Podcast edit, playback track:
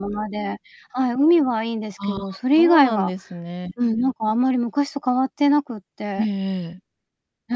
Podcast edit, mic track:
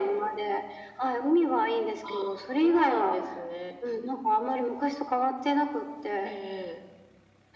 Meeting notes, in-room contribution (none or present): none